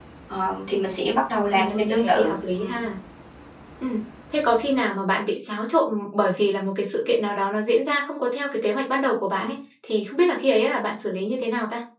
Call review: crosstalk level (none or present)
present